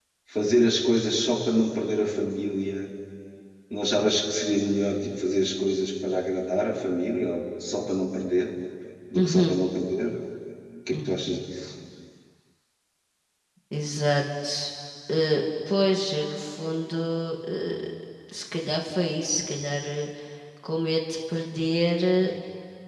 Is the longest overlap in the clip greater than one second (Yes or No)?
No